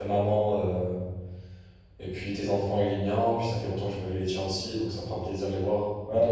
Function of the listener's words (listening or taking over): taking over